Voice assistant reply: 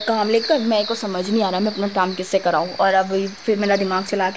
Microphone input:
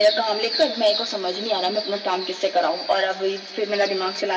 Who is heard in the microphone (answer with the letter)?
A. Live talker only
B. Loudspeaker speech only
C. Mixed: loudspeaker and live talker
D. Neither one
B